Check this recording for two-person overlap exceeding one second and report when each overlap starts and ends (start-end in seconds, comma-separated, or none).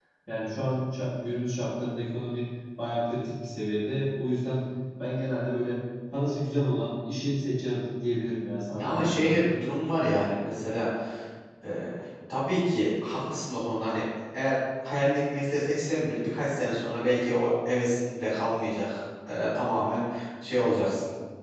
none